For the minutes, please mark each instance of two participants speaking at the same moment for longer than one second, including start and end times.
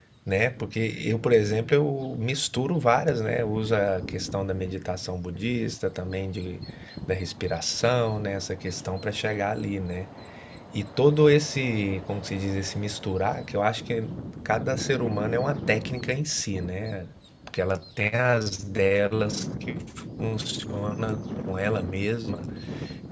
none

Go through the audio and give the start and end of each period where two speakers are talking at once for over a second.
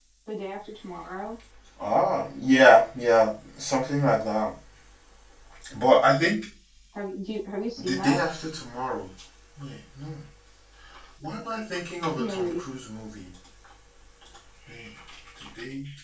none

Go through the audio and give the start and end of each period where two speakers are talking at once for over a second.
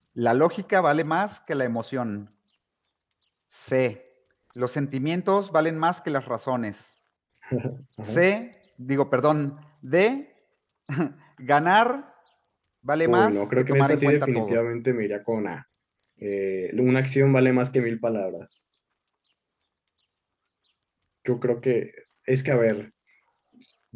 13.1-14.6

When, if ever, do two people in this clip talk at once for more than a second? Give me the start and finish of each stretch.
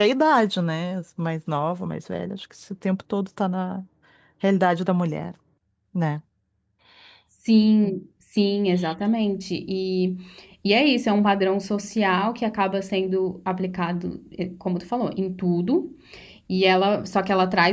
none

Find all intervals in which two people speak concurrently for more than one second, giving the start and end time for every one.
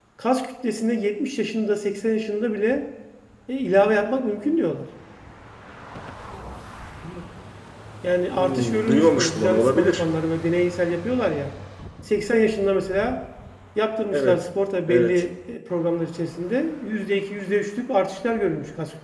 8.3-10.0

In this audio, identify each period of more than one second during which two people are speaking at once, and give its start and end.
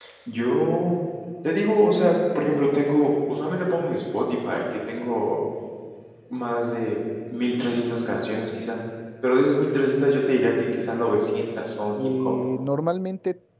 none

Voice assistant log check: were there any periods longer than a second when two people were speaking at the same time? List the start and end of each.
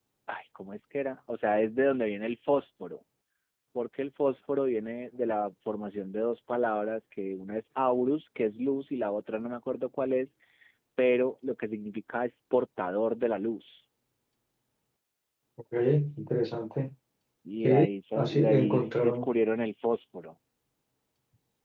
17.6-19.3

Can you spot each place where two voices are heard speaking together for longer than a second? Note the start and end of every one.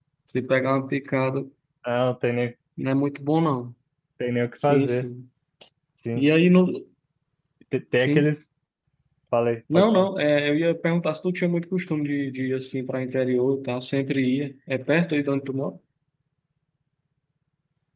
none

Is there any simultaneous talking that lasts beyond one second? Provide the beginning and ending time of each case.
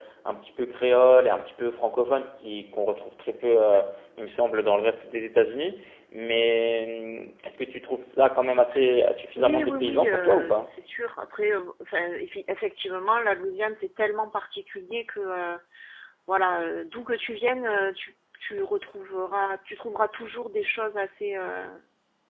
9.4-10.7

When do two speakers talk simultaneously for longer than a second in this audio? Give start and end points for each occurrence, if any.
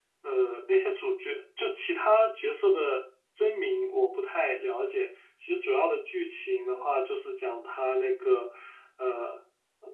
none

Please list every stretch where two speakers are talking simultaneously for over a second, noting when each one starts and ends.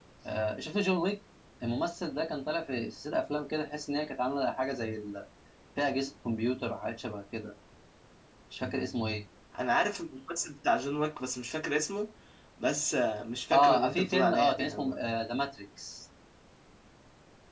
13.5-14.9

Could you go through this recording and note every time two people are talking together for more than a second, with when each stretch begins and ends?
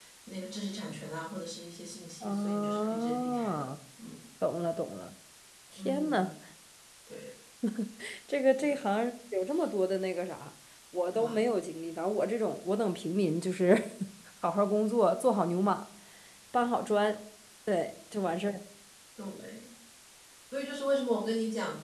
2.2-3.6

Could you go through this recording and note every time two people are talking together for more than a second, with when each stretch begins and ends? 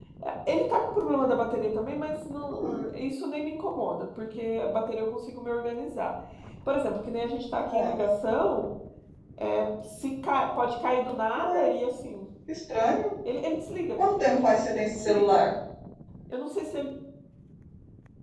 13.9-15.4

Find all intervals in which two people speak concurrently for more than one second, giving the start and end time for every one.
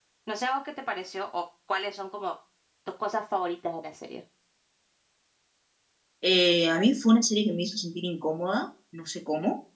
none

